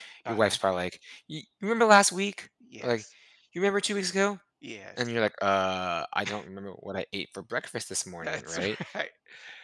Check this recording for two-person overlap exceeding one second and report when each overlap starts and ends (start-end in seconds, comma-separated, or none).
none